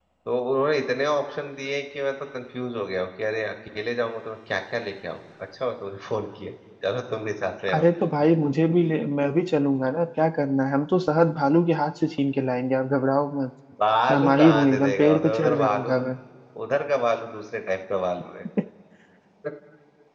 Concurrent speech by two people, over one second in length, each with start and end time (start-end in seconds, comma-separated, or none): 14.1-16.0